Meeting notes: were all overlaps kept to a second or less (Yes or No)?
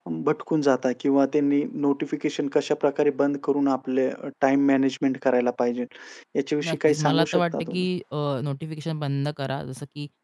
No